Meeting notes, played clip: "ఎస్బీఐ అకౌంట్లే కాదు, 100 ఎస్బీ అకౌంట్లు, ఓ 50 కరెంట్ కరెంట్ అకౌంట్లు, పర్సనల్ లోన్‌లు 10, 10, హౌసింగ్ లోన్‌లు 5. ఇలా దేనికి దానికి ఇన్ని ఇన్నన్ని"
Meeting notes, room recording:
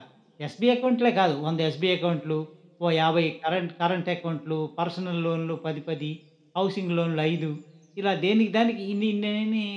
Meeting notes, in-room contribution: none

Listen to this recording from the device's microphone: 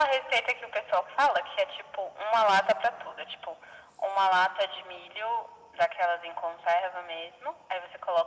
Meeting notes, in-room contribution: none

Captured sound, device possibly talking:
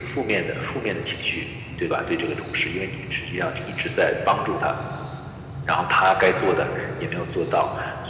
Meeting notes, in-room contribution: none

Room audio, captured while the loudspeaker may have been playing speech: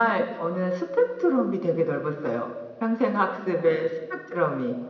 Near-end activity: none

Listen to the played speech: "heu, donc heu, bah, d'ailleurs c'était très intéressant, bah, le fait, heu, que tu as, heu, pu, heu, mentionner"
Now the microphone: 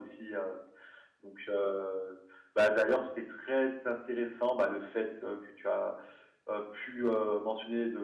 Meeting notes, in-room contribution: none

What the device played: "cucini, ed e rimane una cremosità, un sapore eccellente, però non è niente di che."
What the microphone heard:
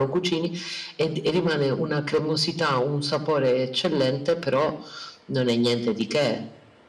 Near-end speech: none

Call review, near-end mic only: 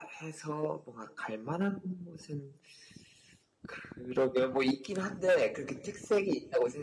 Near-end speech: none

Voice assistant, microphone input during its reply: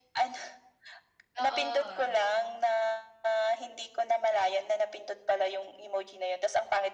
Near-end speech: present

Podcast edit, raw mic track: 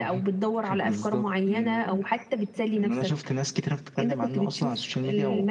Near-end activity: none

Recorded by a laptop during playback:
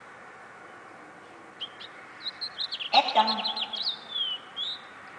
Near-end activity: present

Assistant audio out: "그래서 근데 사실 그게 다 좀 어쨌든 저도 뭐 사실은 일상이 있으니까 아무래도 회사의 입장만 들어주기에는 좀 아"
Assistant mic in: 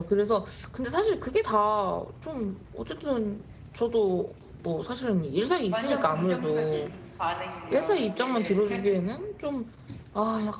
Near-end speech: present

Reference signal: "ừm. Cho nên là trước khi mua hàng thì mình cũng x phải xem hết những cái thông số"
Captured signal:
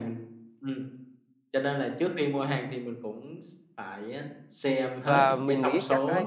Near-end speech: present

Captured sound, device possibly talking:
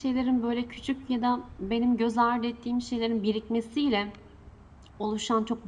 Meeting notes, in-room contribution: present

